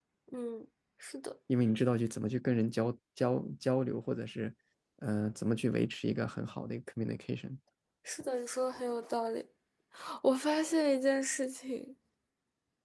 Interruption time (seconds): none

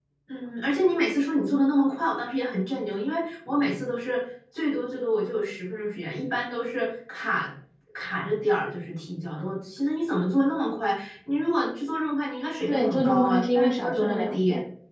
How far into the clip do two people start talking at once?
13 s

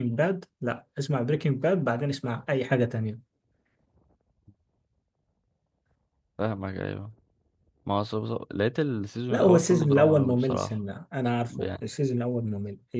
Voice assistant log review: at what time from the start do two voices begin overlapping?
9 s

